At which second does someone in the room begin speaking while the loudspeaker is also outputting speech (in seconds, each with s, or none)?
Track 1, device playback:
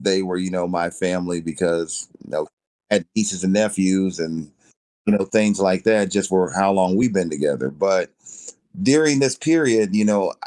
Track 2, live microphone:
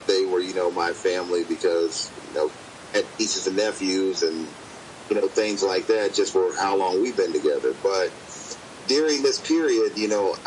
none